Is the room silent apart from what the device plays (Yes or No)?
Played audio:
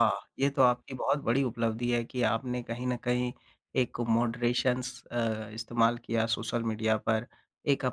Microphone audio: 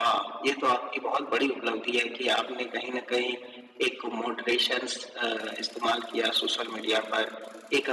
Yes